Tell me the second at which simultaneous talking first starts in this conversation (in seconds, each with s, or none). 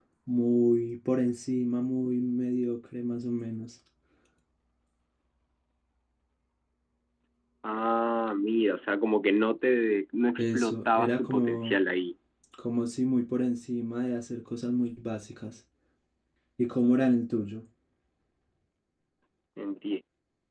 10.4 s